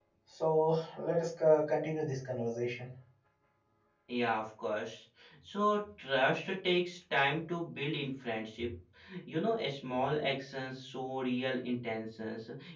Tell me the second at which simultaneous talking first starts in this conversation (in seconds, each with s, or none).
none